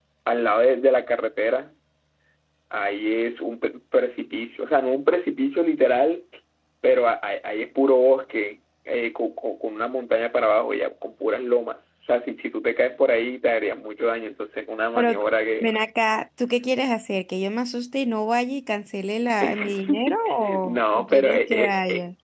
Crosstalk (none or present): present